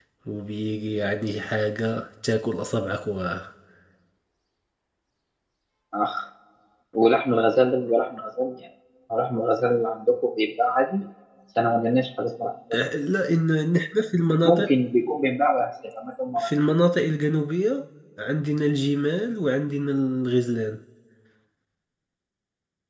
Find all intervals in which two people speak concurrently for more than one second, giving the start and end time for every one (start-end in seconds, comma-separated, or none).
none